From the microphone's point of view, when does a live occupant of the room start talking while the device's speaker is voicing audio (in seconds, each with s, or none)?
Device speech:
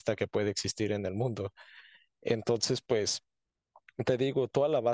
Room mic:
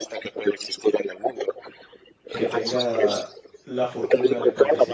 2.3 s